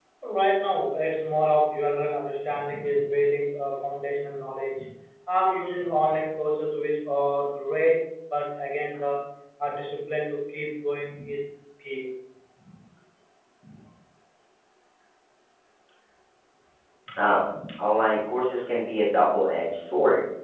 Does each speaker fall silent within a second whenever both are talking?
Yes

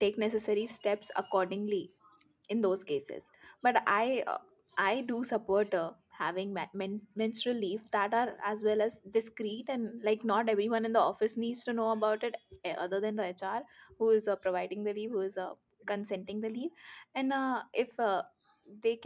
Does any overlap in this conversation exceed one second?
No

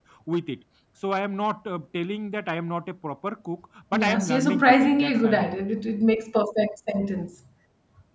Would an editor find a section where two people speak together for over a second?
Yes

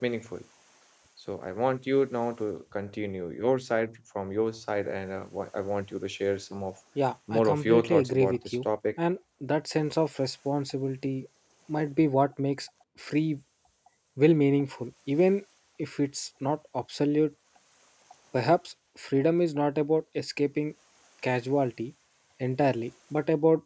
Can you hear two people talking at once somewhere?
Yes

